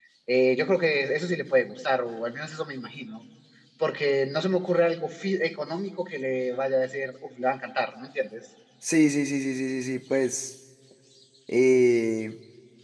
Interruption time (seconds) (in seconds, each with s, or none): none